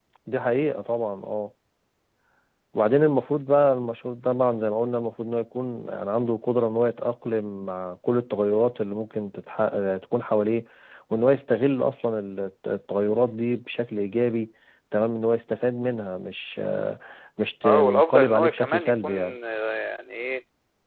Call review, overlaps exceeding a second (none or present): present